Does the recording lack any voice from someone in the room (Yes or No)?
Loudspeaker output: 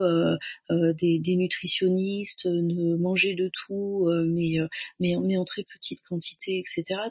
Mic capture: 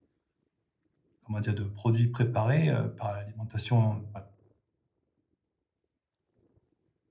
No